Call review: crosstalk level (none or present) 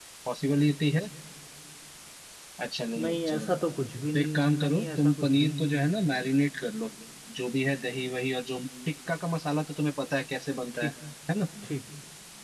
present